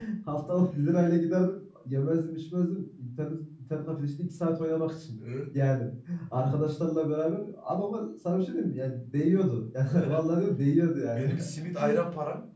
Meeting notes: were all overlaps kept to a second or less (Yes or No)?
Yes